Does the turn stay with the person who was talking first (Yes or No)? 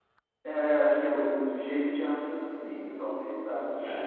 Yes